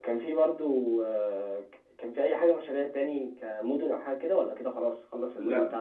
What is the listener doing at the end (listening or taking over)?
taking over